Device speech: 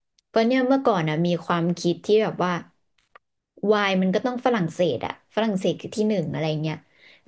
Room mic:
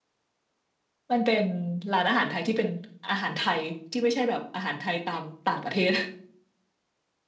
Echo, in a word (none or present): none